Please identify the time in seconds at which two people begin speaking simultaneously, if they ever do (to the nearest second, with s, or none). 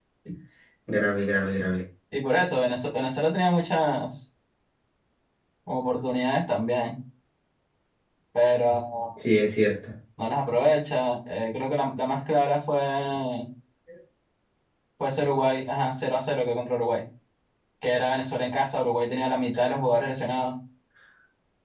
none